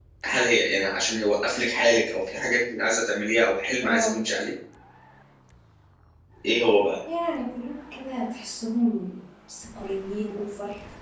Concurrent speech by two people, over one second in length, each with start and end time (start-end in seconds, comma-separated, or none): none